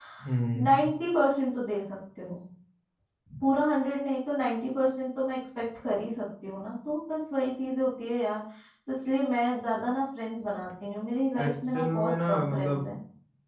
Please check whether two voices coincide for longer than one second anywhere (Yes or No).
Yes